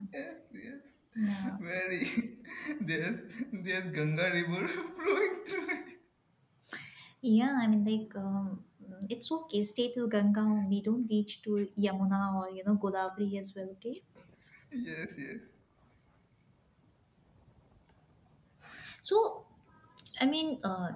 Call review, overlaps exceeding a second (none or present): none